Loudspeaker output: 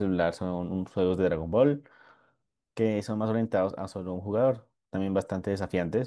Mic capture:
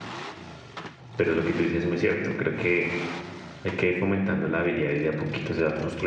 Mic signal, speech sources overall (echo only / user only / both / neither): user only